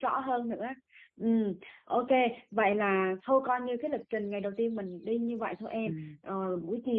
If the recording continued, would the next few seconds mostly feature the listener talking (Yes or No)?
No